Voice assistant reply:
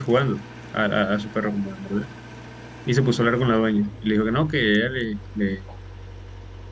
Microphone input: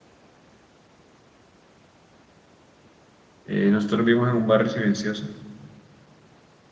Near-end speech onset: 3 s

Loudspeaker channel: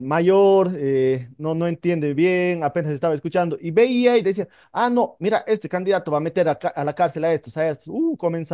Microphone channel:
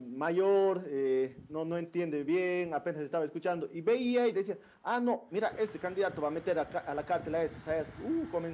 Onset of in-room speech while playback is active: none

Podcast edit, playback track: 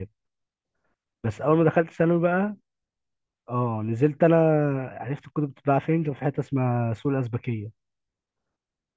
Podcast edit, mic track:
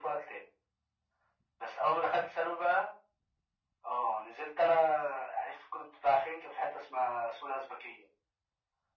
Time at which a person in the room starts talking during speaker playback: none

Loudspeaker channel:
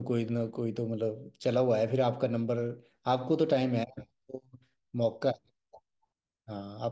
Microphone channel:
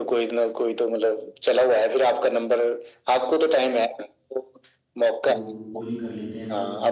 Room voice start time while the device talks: 5 s

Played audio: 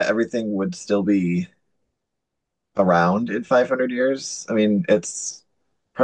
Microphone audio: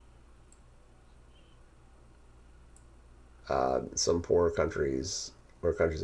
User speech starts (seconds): 3 s

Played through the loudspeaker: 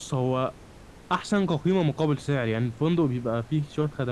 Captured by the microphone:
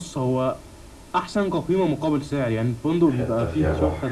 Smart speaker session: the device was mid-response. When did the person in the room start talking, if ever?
3 s

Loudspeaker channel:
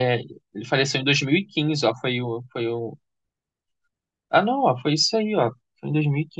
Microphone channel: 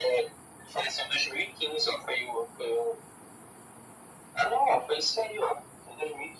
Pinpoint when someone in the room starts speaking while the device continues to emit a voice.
none

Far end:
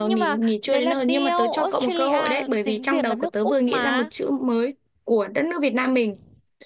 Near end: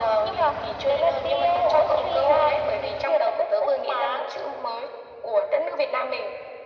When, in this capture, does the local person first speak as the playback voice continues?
none

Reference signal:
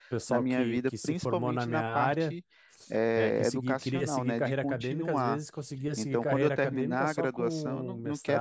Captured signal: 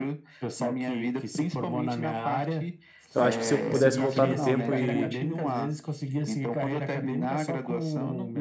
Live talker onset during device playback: 3 s

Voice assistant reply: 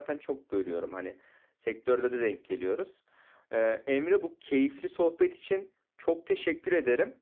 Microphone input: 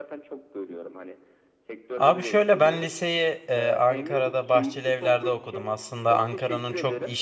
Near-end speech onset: 2 s

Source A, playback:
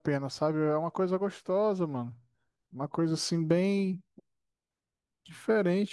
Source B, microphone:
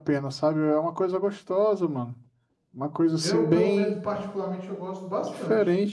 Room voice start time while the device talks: 3 s

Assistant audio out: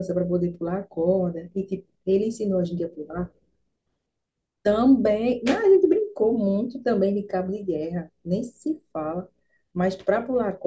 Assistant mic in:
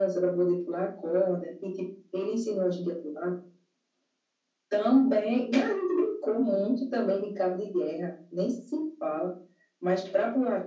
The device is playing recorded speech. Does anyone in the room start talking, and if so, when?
none

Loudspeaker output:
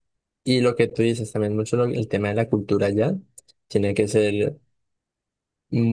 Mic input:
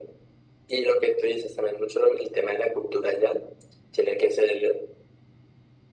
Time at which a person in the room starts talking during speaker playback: none

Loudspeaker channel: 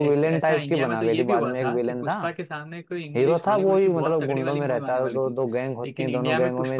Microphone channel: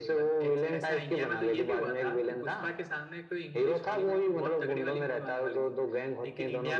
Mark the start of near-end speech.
none

